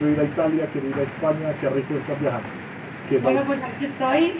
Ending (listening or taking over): taking over